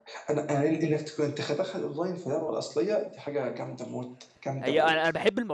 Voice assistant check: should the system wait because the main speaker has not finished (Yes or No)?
No